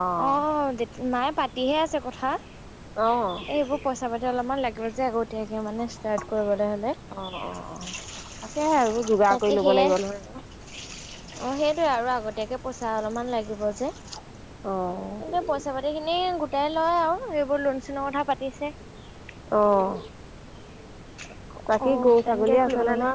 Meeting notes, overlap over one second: present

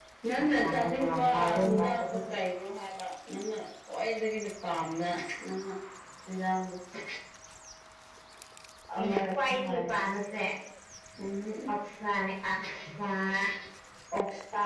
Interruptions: present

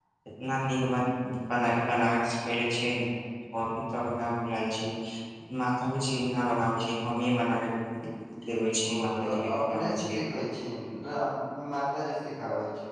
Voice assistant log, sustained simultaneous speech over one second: present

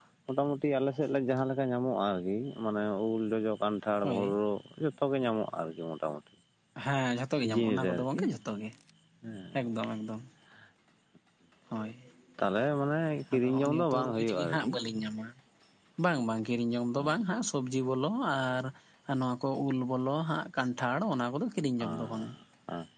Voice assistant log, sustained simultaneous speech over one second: present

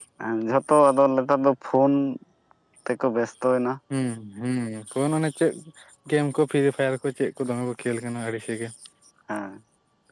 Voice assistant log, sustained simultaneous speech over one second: none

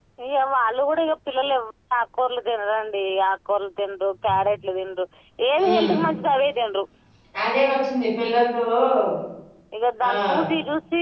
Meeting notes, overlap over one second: none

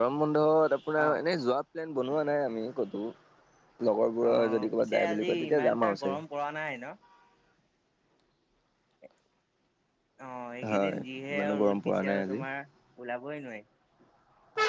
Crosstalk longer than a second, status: present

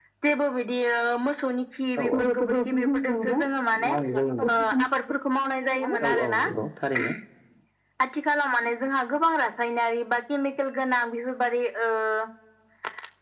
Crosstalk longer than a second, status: present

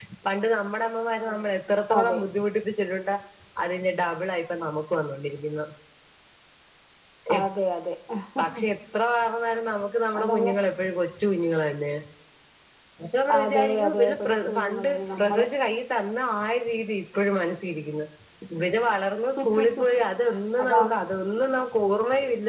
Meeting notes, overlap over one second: present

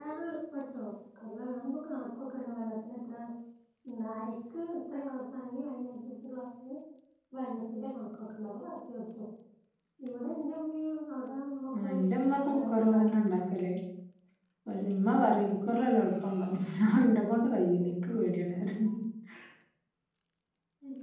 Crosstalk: present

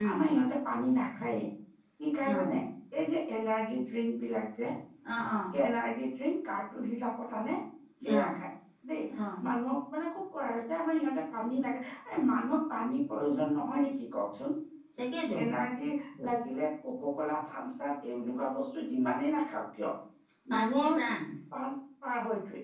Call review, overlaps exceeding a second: none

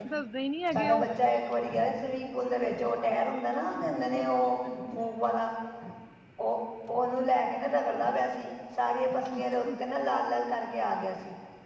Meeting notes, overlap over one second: none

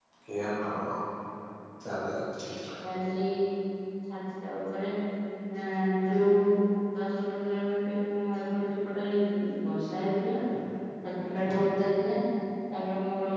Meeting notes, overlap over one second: none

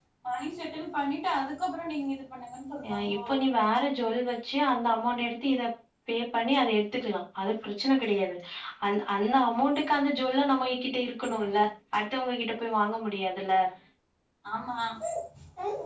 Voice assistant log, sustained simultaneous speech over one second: none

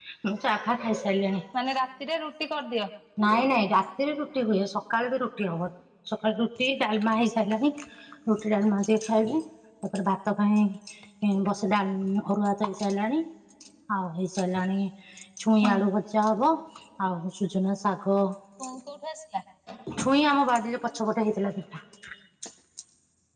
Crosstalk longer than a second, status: none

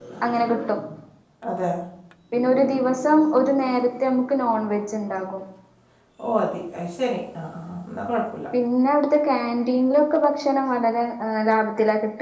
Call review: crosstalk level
none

